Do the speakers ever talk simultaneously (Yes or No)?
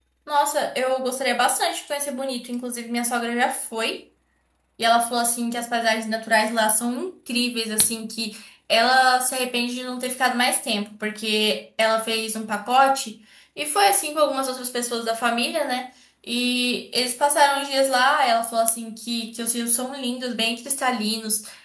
No